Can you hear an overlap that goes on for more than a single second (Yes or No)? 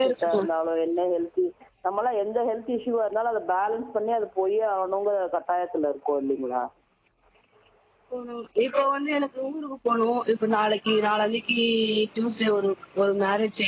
No